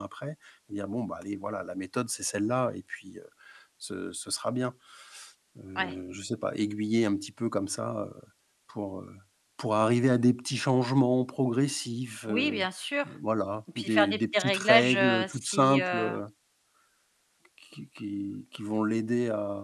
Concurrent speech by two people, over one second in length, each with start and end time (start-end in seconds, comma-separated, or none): 13.8-16.1